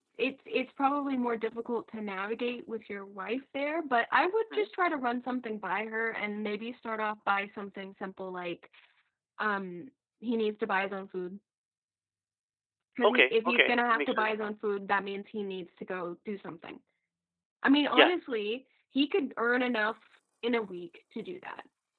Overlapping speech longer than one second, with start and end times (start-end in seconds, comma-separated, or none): 13.0-14.3